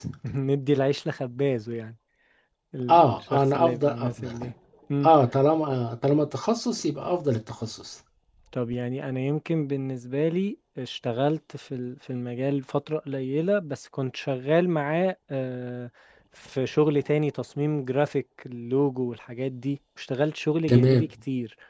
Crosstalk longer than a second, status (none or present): present